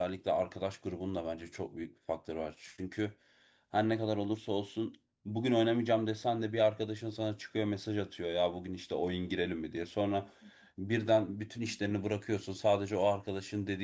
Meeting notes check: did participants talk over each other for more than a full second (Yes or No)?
No